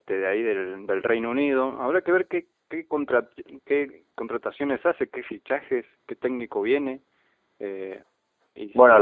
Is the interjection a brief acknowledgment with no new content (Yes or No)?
No